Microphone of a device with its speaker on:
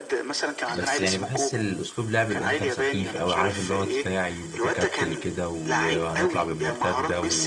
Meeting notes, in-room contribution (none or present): present